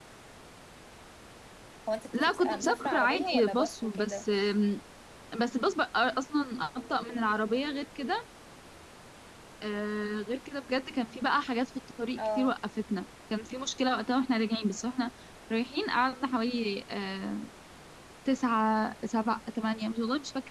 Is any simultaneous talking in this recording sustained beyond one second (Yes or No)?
Yes